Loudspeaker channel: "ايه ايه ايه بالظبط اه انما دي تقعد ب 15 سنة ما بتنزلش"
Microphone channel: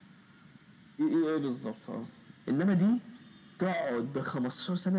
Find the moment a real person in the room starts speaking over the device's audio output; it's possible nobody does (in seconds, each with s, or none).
none